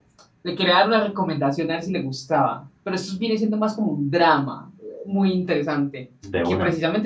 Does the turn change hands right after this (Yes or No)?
No